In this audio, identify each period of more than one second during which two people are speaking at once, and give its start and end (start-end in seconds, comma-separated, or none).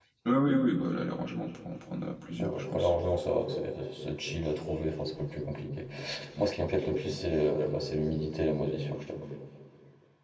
none